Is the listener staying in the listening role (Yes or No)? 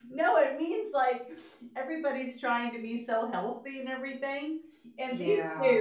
Yes